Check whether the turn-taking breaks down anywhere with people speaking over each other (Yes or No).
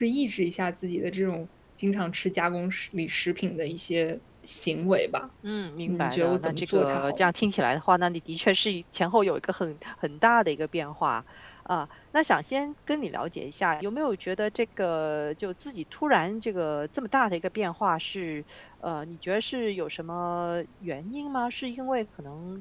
Yes